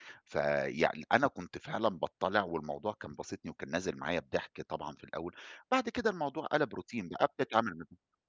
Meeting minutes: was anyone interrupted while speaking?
No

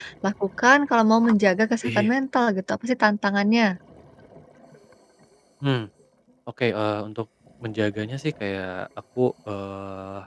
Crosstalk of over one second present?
No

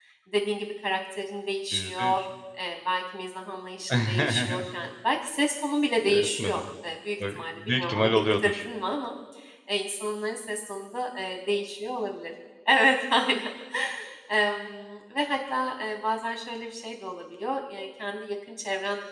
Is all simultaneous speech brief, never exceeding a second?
No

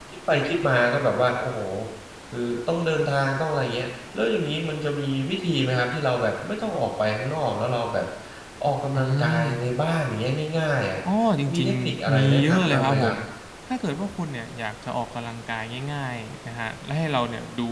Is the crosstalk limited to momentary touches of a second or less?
No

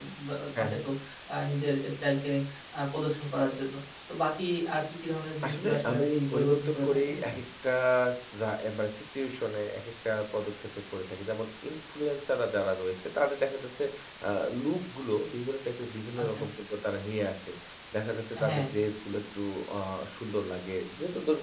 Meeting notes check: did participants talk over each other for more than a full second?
Yes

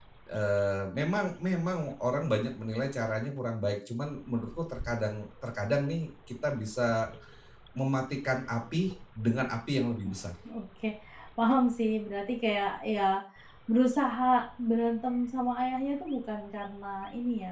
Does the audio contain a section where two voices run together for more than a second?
No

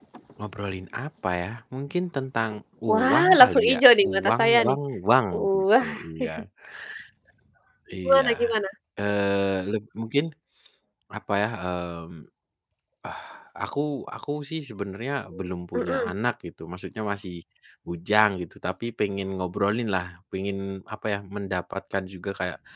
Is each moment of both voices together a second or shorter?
No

